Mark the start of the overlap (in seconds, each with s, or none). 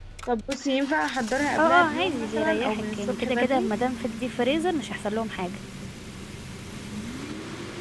1.6 s